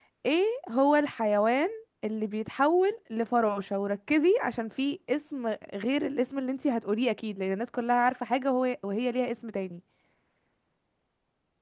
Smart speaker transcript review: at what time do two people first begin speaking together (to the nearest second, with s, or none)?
none